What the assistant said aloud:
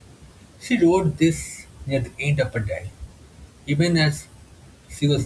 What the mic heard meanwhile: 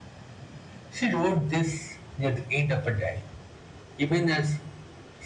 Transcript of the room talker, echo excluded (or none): none